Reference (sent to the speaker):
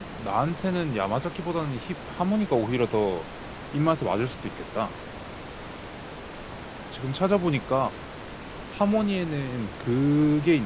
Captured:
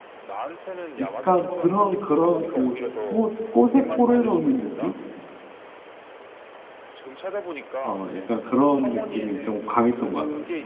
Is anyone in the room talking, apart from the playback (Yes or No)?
Yes